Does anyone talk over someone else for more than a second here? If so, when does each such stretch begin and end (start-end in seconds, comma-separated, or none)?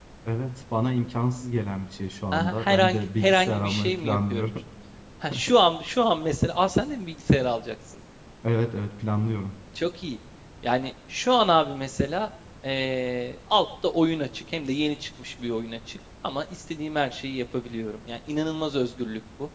2.3-4.5